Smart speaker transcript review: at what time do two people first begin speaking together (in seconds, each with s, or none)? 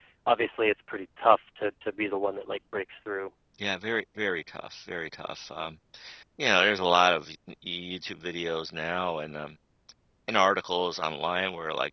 none